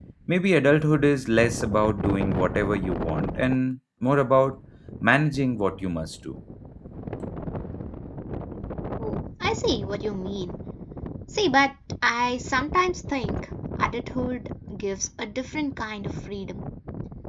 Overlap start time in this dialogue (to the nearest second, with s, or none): none